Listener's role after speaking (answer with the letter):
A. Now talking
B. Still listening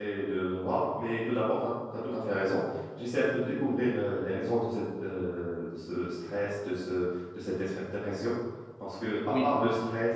B